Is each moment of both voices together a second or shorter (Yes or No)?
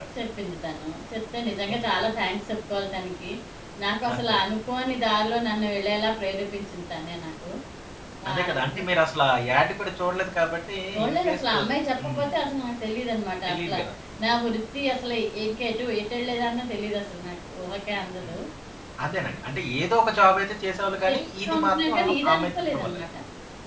No